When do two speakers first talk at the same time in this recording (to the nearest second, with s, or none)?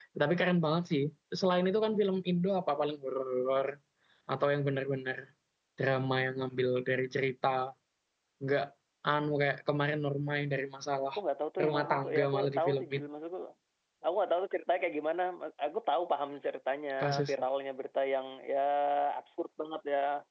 12 s